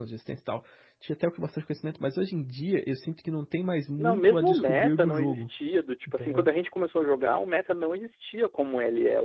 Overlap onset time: 4.0 s

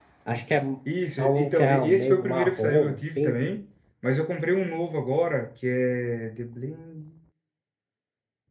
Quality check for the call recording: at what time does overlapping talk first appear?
1.2 s

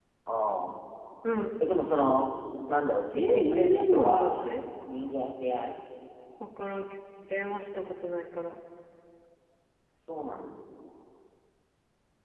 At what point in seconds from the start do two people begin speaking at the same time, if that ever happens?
3.1 s

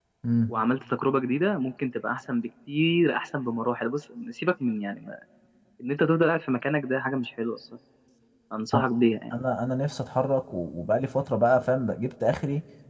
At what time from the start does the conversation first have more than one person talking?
none

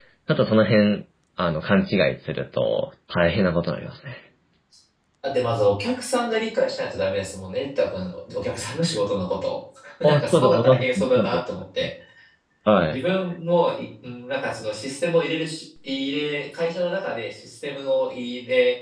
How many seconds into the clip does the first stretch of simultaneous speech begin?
10.0 s

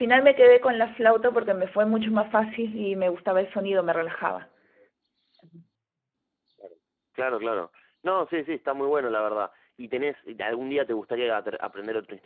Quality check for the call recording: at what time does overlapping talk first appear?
none

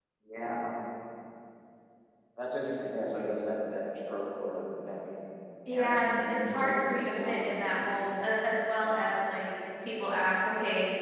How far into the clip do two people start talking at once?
5.7 s

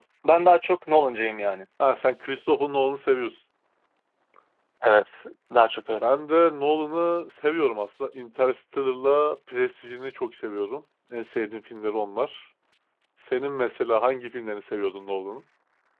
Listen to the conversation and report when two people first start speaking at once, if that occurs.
none

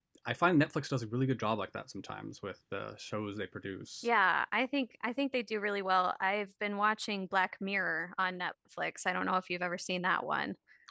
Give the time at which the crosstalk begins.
none

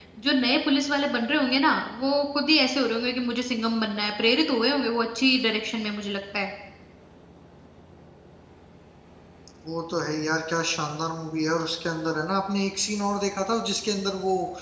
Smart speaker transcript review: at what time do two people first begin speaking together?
none

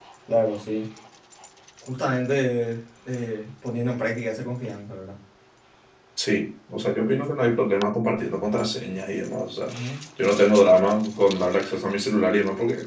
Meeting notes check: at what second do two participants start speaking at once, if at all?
none

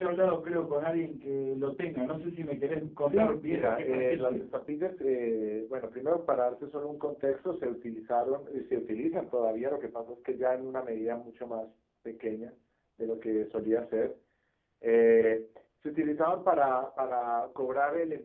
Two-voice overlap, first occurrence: 3.0 s

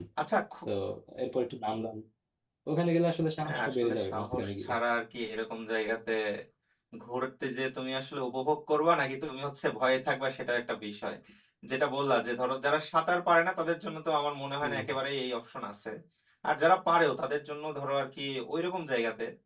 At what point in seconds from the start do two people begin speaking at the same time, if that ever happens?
3.4 s

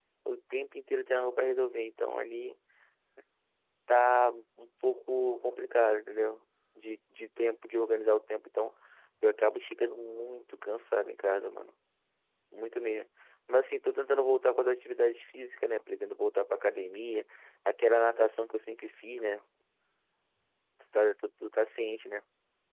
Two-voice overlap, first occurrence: none

